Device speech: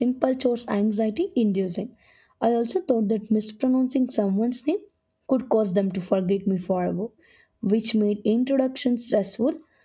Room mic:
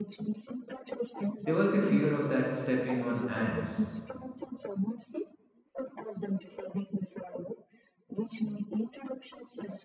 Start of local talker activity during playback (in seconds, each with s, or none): 1.4 s